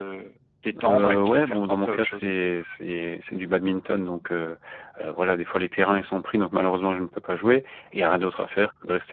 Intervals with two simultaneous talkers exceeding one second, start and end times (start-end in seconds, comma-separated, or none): 0.8-2.3